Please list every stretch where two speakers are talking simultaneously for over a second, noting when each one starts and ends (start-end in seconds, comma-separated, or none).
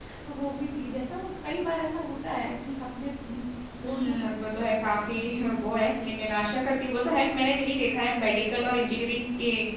3.8-5.8